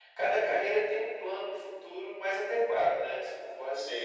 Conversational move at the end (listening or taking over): taking over